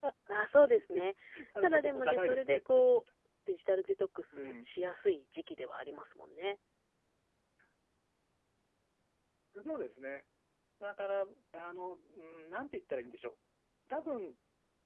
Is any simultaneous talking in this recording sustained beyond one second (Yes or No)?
Yes